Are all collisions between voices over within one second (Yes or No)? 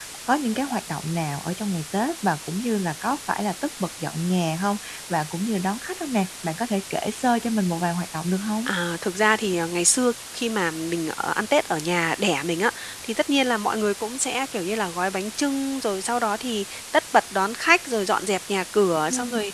Yes